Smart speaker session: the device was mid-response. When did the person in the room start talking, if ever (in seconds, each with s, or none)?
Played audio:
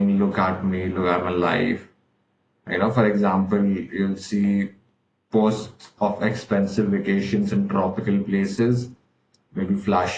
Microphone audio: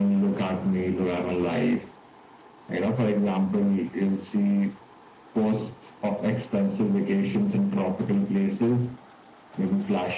none